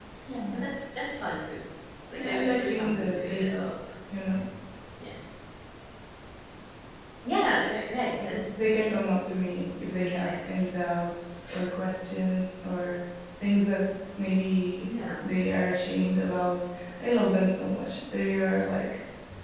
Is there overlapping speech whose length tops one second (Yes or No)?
Yes